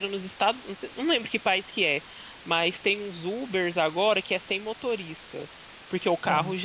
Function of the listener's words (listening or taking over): listening